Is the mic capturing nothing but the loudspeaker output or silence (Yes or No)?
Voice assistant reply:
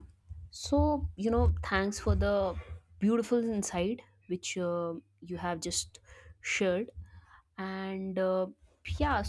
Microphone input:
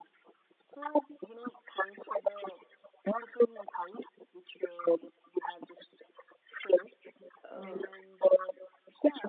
No